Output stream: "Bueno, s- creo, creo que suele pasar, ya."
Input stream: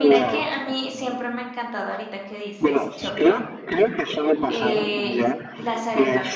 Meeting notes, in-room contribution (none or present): present